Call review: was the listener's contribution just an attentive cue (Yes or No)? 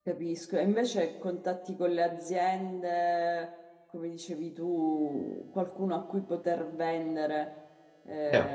No